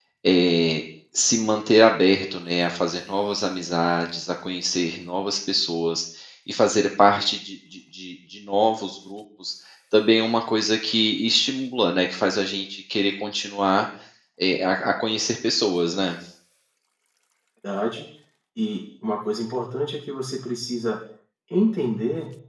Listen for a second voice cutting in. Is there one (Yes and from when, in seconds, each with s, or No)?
No